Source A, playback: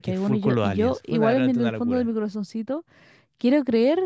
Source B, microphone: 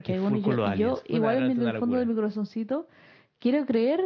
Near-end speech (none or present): none